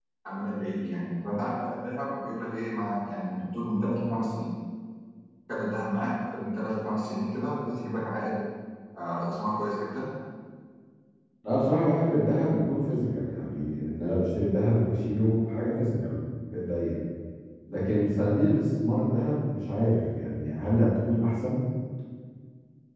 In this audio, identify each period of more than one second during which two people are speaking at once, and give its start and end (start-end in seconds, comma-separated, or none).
none